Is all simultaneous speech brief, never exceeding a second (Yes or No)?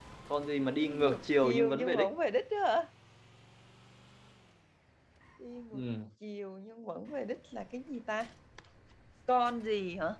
No